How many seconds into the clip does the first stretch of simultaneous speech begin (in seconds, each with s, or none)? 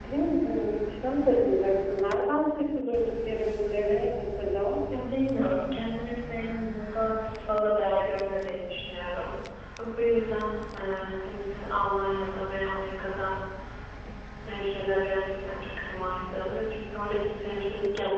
none